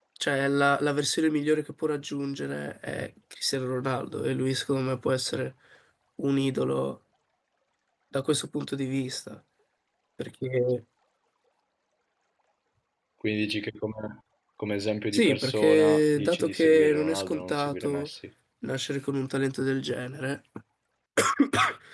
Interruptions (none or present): present